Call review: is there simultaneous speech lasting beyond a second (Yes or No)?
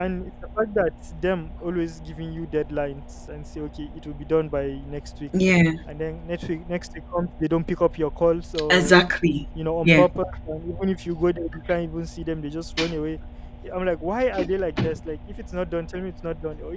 No